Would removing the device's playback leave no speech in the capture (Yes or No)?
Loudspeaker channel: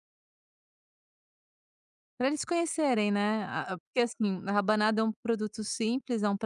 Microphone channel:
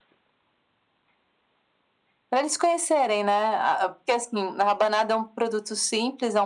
Yes